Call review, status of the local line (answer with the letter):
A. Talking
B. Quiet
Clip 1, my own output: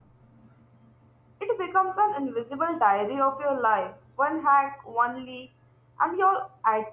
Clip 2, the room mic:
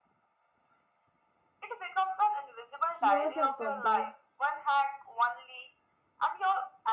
A